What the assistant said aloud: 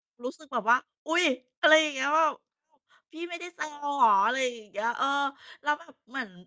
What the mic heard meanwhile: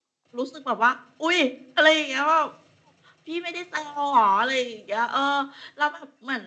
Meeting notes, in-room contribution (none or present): none